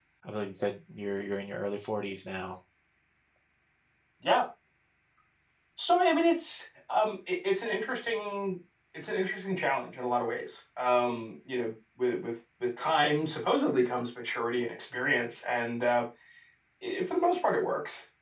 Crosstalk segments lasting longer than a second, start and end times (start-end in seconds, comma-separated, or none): none